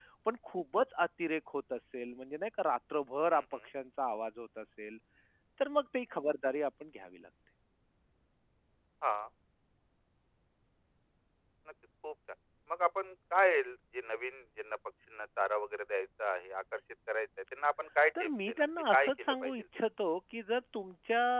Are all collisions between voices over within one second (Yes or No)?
No